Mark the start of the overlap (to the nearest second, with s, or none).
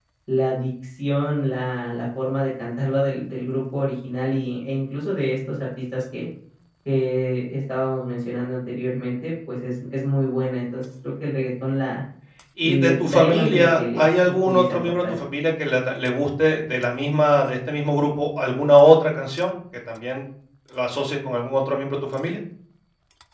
13 s